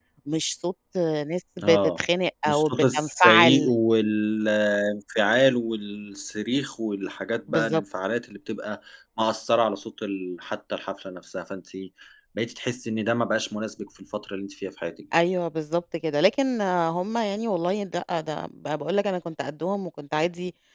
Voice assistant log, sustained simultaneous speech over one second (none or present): present